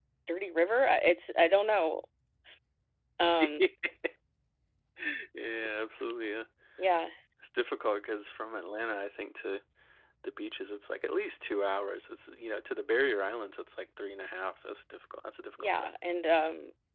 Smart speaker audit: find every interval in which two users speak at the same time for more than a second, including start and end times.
none

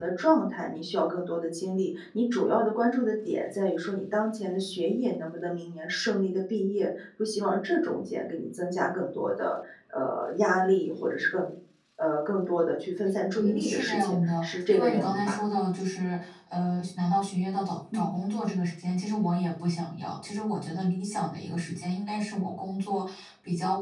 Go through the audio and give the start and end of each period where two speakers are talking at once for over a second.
13.3-15.4

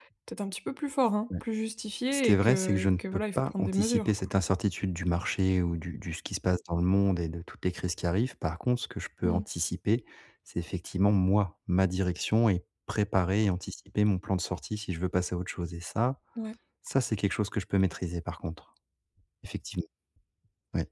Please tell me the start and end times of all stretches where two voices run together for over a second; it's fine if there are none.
2.1-4.3

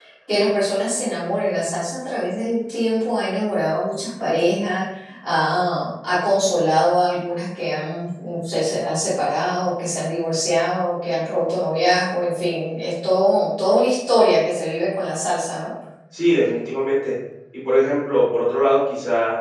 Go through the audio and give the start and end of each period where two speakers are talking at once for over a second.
none

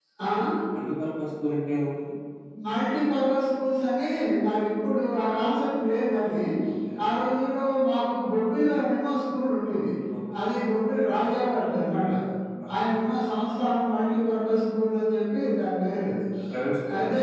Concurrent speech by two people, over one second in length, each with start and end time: none

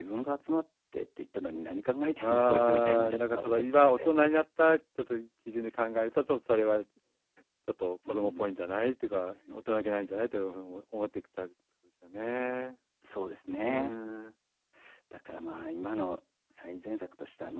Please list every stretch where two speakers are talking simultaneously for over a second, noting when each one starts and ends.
2.2-4.1

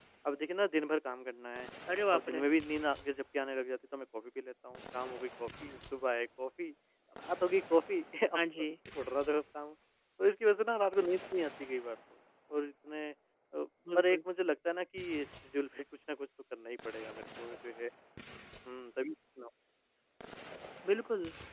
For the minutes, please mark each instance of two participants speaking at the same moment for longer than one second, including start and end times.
none

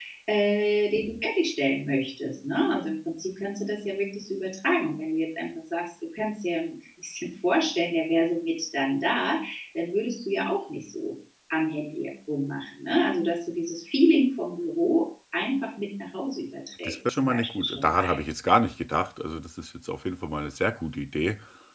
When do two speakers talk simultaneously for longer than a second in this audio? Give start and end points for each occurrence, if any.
16.8-18.2

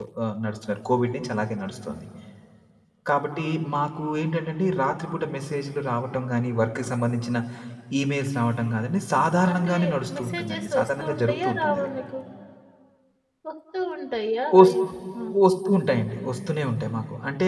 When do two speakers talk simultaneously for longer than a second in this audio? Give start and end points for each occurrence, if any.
10.2-11.9

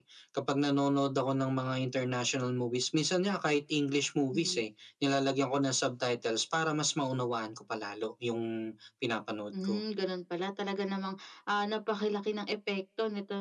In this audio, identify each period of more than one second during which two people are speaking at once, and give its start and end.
none

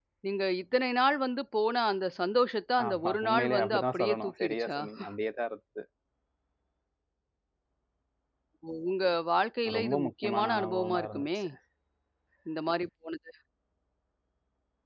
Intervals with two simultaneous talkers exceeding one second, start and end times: 2.8-4.8, 9.8-11.2

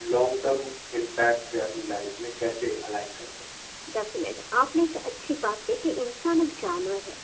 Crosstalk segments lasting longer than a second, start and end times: none

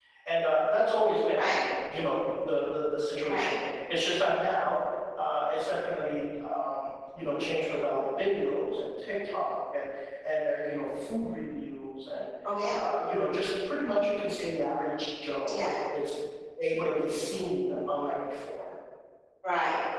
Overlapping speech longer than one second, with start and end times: none

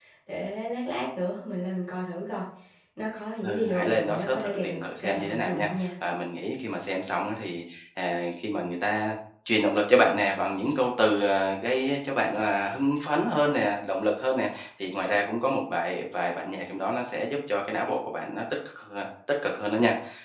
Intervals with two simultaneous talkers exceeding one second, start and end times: 3.4-5.9

